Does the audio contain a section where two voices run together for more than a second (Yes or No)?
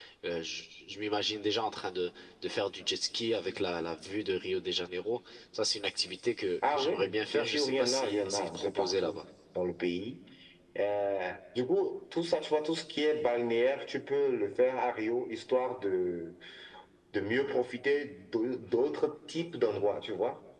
Yes